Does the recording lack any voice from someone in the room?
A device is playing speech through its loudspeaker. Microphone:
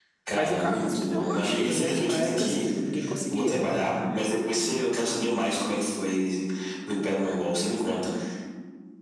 No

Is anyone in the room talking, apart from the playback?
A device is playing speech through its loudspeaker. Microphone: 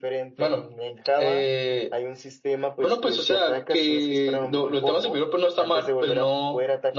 No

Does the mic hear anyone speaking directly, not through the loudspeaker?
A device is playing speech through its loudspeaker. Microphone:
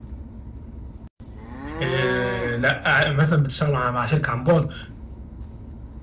Yes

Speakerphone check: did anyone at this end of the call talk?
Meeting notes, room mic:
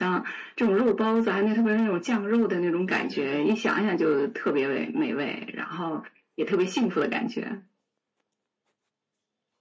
Yes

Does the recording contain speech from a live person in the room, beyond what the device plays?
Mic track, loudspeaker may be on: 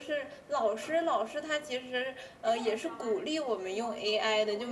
Yes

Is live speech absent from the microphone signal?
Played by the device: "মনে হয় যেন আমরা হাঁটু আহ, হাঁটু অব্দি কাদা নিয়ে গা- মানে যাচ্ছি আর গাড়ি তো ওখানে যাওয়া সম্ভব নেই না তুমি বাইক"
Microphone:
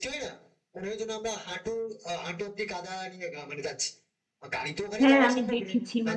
No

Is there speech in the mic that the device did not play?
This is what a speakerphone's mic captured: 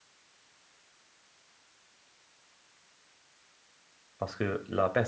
Yes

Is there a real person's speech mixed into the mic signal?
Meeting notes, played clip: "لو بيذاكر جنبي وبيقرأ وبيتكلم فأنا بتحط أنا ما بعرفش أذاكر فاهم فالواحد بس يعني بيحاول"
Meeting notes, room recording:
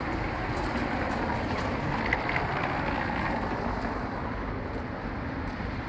No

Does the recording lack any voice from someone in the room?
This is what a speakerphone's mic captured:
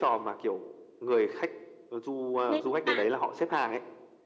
No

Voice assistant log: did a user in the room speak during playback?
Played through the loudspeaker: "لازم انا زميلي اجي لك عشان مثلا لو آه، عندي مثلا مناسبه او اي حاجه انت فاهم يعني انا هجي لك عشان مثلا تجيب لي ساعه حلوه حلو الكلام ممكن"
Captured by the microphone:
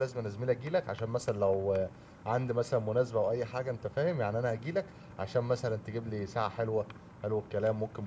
No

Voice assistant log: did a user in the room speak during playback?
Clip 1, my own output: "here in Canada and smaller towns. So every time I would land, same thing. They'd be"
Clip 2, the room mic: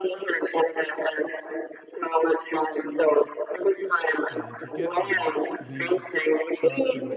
Yes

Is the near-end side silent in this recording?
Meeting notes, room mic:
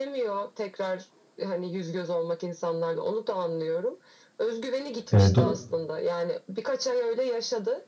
No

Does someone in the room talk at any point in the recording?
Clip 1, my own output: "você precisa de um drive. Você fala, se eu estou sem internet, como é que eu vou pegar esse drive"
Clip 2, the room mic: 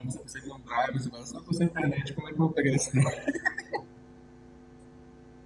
No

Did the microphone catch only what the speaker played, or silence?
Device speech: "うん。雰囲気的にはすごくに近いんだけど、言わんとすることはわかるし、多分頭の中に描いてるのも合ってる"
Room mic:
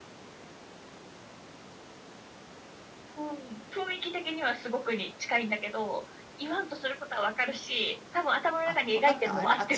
No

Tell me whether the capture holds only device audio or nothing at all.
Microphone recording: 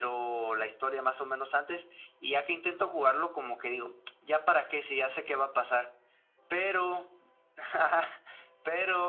Yes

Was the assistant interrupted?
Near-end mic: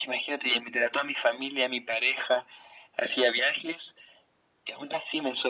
No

